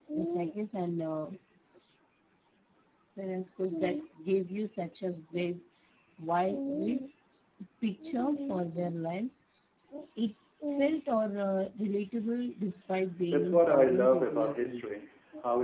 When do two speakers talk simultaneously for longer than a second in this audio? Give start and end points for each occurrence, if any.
13.3-14.8

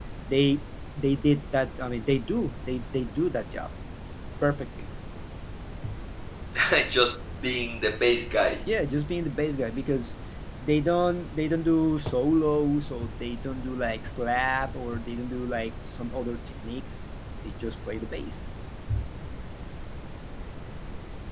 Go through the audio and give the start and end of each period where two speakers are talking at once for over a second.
none

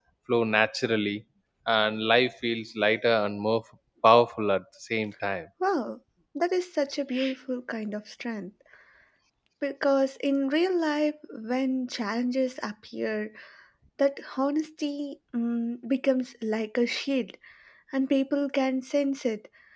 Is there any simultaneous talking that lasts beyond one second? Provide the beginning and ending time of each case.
none

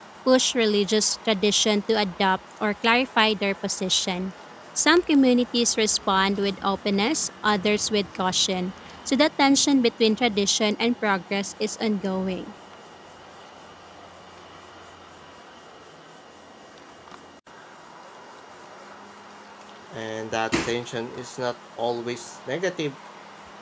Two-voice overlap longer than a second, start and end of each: none

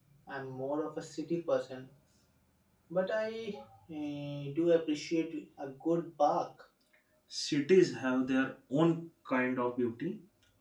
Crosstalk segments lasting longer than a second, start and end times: none

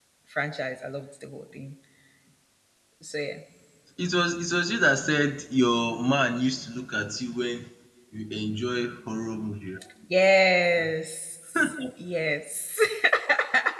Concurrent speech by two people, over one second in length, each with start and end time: none

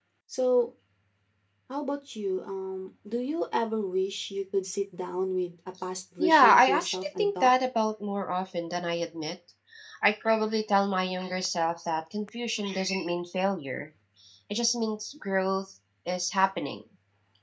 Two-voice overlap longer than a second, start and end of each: 6.2-7.5

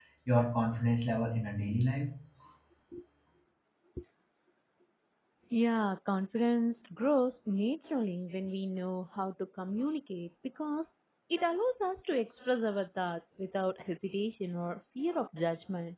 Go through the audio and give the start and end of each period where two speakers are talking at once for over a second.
none

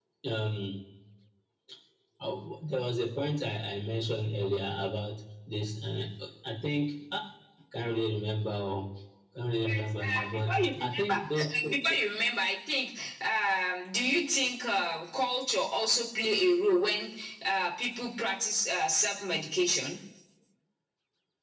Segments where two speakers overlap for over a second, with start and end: 9.6-11.4

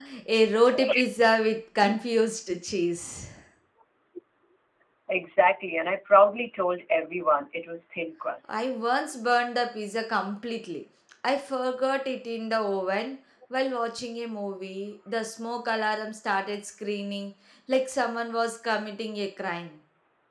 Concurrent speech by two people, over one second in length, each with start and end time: none

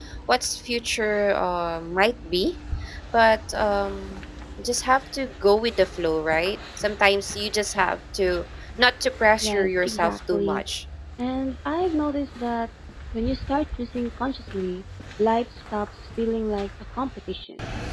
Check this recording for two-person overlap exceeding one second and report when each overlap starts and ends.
9.4-10.6

